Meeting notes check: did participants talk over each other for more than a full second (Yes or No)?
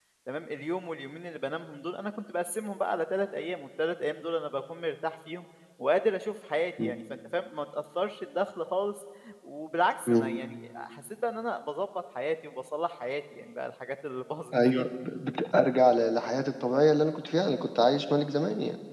No